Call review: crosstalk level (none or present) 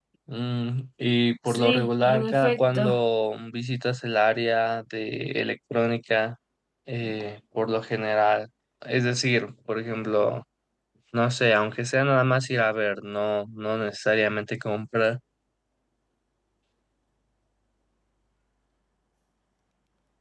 present